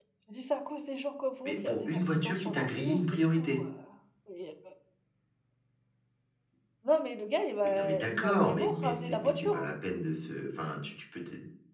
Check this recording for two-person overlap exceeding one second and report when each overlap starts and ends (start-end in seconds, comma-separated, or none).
1.4-3.6, 7.6-9.7